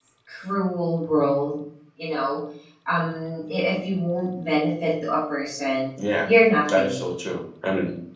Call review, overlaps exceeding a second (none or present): none